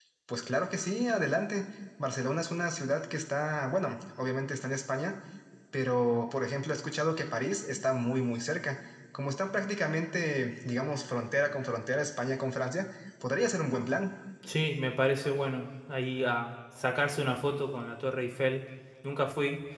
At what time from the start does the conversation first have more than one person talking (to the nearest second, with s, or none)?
none